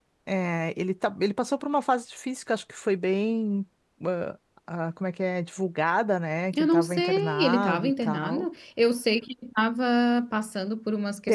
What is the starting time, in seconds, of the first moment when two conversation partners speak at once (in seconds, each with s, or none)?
6.5 s